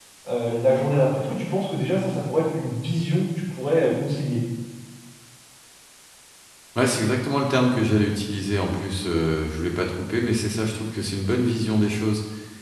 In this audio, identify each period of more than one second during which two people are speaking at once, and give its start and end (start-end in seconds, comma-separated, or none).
none